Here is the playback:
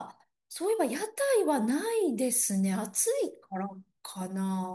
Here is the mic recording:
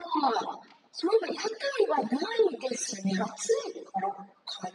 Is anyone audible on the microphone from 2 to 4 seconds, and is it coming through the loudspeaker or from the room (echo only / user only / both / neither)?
echo only